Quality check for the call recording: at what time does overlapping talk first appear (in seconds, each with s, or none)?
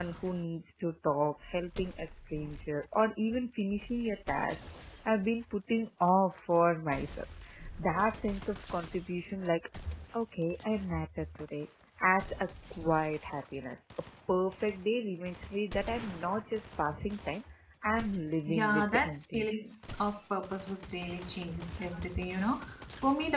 18.5 s